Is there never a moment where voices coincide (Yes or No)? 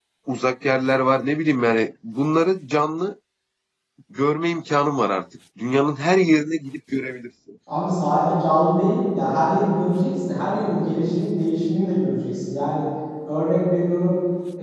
Yes